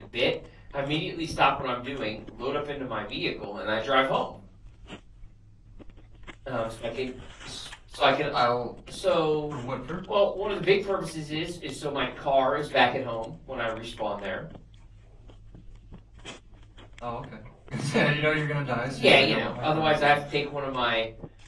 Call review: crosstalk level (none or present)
present